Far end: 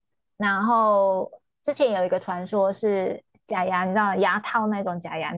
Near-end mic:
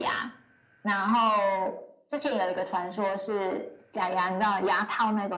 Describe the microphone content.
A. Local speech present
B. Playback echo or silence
B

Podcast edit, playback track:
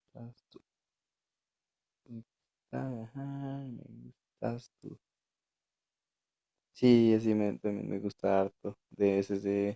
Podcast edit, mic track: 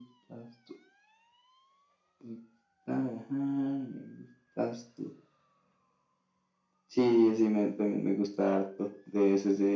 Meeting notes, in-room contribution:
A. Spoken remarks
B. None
B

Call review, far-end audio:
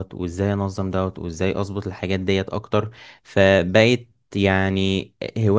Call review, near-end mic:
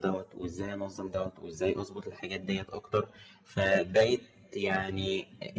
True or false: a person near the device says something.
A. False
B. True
A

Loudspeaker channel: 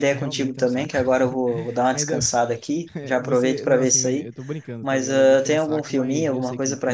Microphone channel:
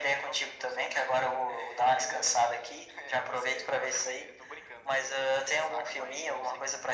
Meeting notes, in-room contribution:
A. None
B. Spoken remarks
A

